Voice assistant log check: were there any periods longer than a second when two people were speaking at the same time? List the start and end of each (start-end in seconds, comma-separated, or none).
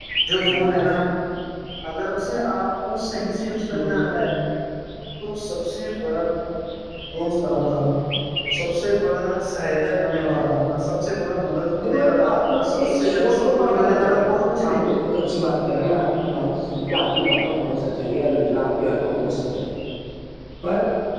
11.8-14.3